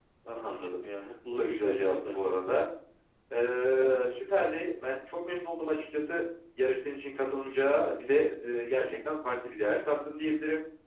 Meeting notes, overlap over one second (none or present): present